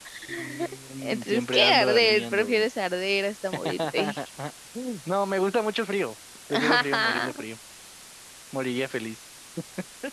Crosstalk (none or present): present